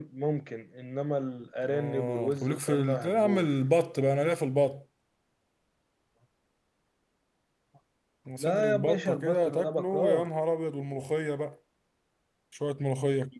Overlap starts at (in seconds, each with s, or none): 1.7 s